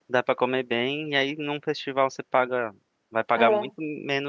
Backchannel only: Yes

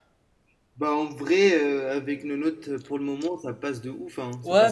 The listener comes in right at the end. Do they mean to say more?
Yes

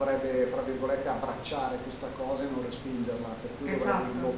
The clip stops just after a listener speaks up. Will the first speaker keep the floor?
Yes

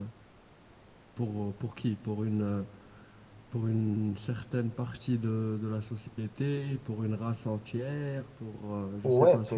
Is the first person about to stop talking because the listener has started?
Yes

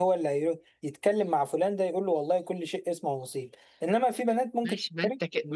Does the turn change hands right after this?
Yes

